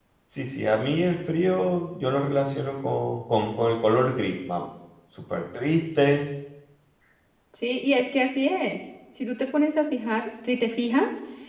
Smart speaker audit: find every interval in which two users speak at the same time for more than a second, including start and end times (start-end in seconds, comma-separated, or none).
none